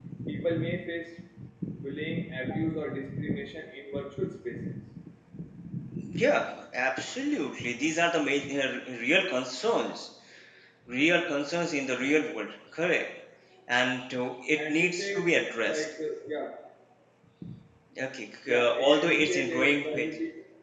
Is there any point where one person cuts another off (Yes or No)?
Yes